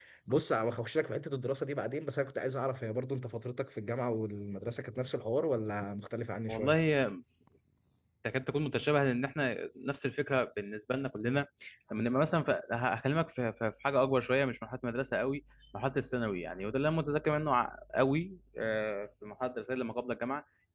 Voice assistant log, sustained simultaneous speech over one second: none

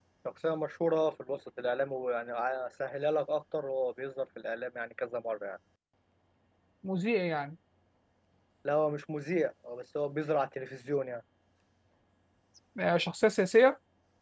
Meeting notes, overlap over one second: none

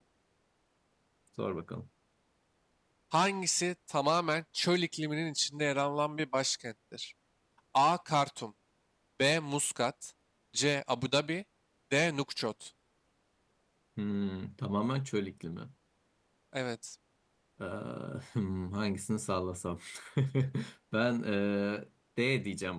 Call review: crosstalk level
none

